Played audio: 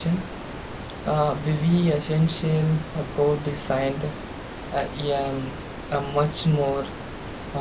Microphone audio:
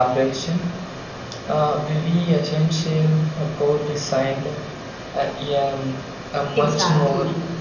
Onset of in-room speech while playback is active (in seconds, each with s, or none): 6.5 s